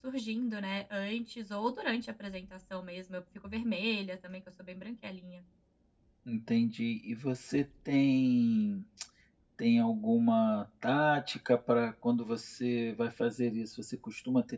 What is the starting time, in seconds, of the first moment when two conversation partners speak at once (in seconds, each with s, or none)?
none